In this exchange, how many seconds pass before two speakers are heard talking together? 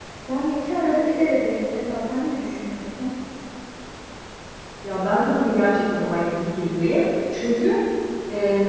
none

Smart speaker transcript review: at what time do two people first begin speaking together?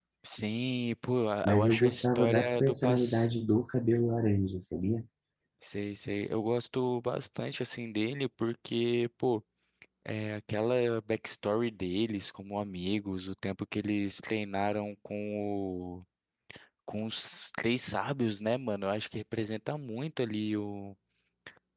1.4 s

